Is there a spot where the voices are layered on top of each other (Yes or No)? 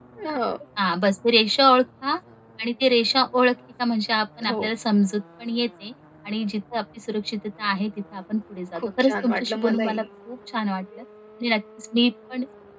Yes